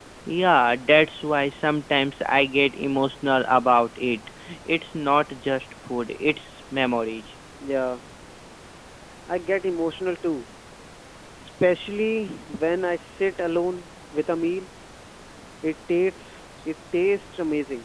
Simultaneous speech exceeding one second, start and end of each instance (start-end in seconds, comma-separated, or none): none